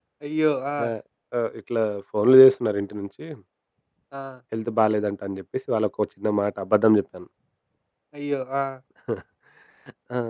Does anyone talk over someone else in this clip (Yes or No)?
No